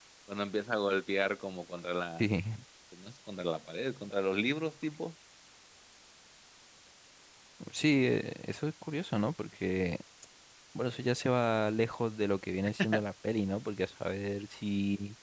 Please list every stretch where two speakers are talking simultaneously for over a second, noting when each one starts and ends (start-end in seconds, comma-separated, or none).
none